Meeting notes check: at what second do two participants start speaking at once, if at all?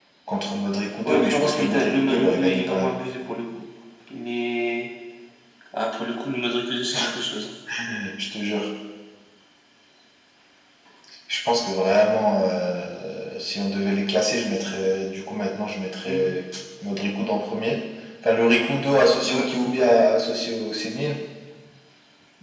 1.1 s

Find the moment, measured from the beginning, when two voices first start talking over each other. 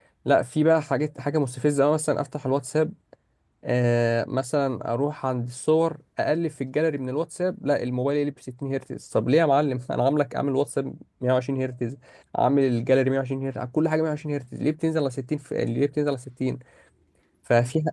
none

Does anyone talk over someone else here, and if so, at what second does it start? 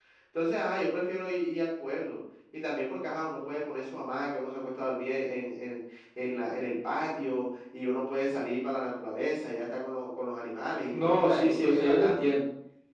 10.9 s

